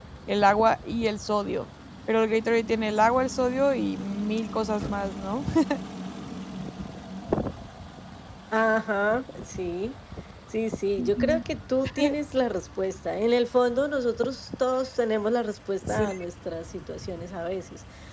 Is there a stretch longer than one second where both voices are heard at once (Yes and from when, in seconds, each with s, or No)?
No